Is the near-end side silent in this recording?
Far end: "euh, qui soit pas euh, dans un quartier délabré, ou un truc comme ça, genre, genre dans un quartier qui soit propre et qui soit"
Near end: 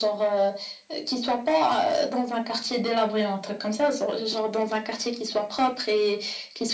Yes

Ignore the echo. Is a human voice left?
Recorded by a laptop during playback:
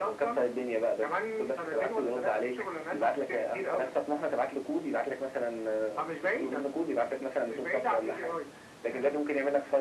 No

